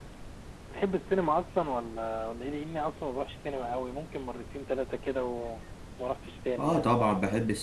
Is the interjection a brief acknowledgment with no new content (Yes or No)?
No